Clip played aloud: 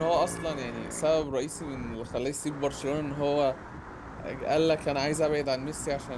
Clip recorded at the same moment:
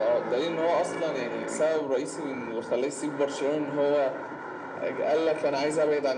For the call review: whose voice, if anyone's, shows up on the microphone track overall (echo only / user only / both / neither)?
echo only